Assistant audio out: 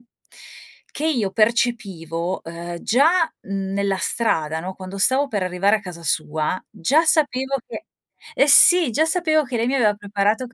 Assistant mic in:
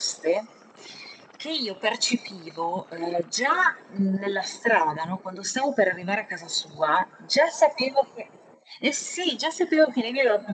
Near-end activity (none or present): none